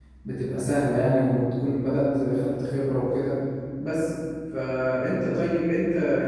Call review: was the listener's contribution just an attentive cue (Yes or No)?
Yes